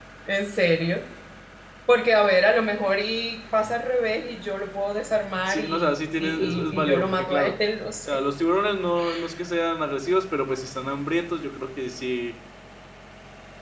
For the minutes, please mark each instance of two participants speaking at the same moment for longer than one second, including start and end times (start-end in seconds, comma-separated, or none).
5.4-7.5